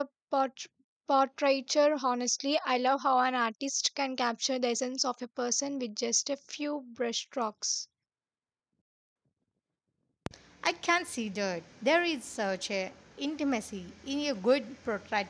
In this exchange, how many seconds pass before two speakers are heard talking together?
none

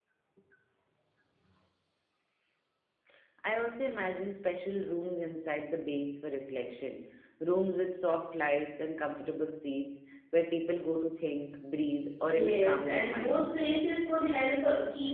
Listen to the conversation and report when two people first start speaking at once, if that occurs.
12.3 s

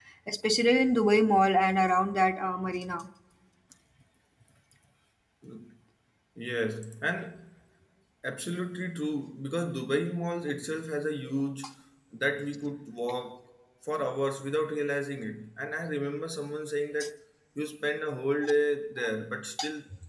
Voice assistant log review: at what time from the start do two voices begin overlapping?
none

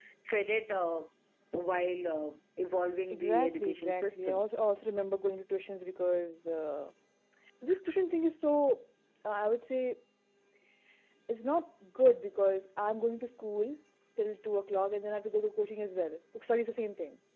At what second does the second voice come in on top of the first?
3.1 s

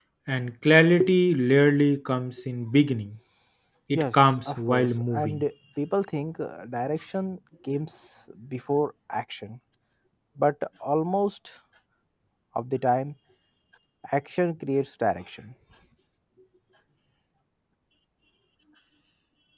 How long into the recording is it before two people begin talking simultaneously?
3.9 s

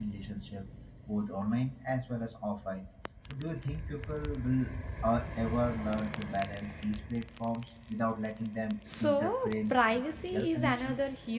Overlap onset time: 8.8 s

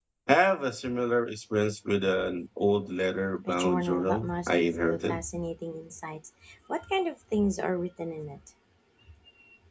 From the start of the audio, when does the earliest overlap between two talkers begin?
3.4 s

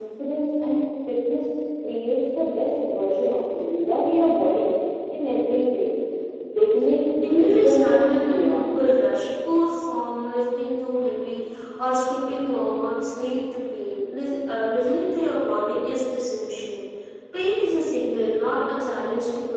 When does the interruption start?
7.2 s

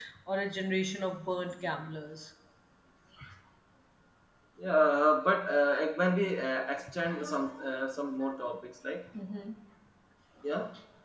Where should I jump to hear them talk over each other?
none

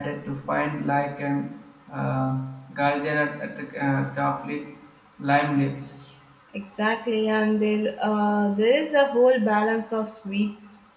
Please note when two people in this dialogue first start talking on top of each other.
none

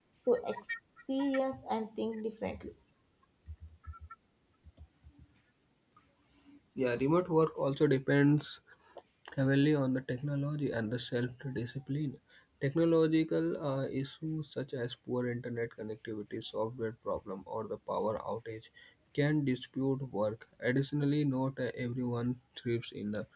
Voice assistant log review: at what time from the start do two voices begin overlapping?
none

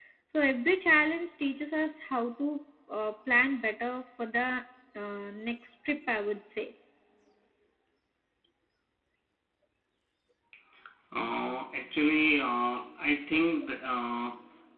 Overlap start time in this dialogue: none

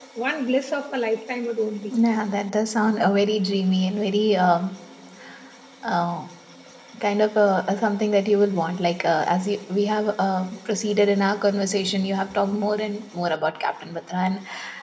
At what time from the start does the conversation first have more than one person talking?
none

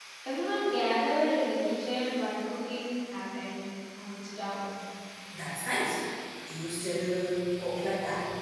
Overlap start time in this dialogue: none

